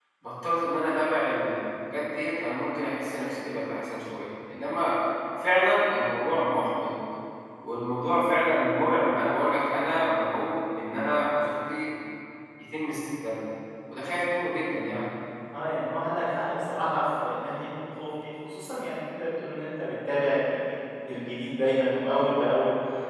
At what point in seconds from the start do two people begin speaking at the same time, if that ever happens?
none

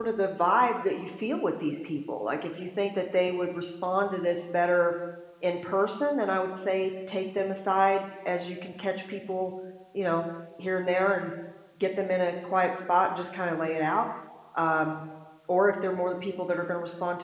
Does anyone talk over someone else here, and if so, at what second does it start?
none

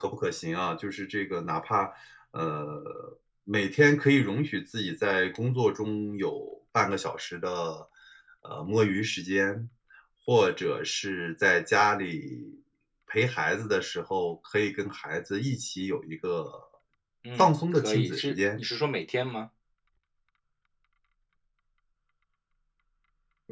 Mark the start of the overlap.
17.4 s

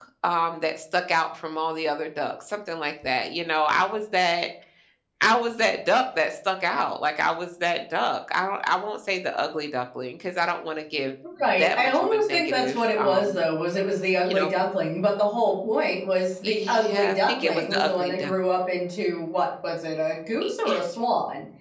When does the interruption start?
11.6 s

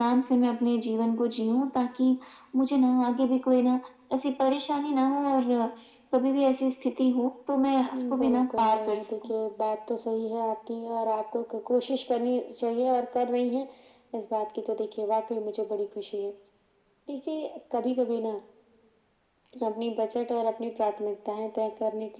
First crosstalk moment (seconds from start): 7.9 s

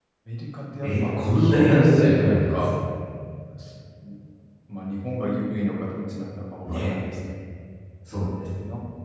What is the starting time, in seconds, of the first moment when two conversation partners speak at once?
0.8 s

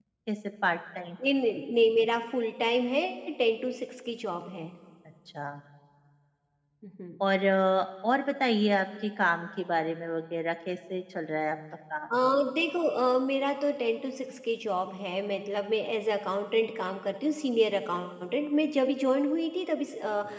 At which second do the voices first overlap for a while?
none

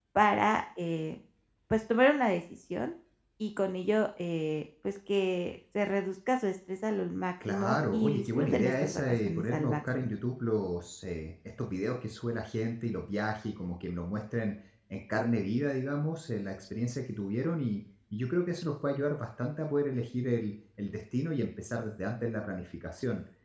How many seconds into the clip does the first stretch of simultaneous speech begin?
7.4 s

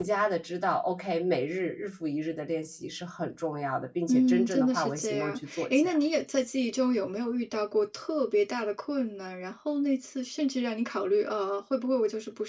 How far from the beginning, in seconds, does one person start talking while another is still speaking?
4.1 s

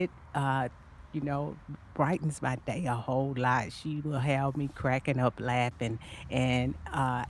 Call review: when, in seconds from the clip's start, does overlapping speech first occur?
none

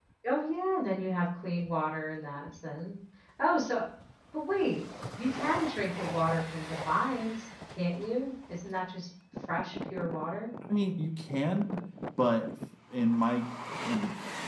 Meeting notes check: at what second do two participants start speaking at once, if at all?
none

